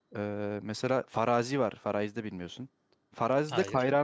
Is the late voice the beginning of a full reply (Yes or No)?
No